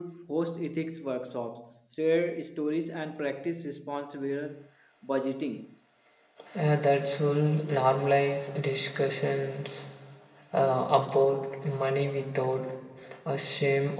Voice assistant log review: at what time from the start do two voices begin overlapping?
none

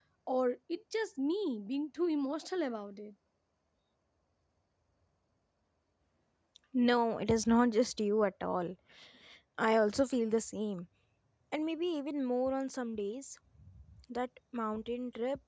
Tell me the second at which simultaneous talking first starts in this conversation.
none

